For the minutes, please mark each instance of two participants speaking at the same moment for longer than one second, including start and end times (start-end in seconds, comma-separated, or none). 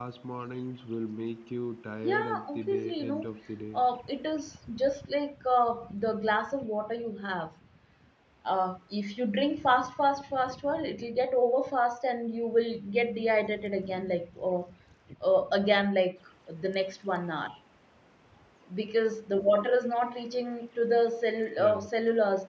2.0-3.3